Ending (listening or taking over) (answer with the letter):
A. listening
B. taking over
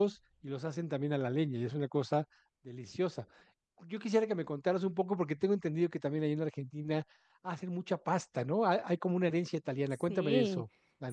B